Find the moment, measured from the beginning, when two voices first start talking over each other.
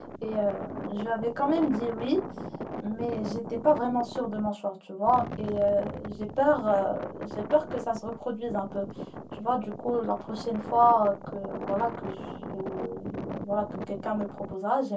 none

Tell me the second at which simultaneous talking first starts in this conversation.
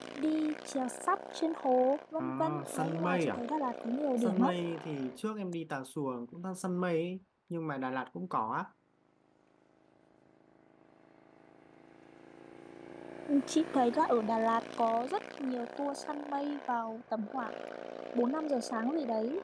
2.2 s

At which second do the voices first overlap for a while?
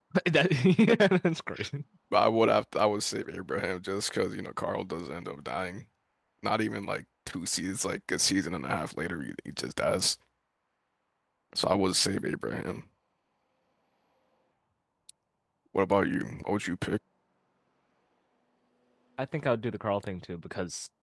none

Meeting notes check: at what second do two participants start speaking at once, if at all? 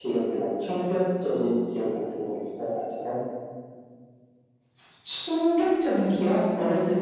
none

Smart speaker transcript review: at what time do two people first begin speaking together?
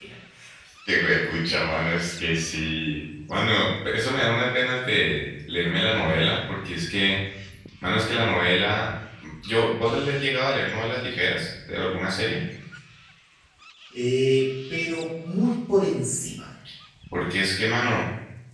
none

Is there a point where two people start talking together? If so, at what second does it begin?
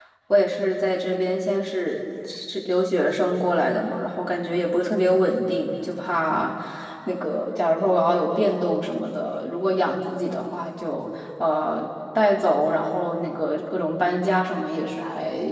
none

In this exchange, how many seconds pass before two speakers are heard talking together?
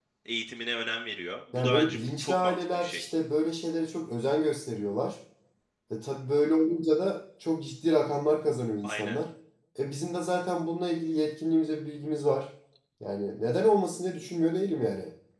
1.6 s

